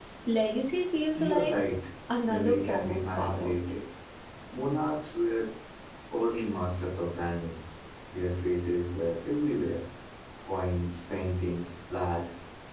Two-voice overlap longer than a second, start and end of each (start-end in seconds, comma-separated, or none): 2.3-3.5